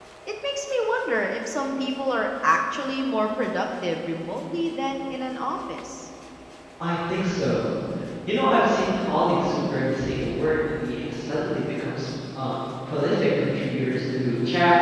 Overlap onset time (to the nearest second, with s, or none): none